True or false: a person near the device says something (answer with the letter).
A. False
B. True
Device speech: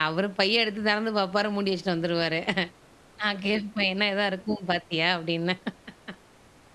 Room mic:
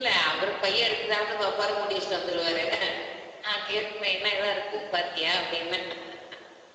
A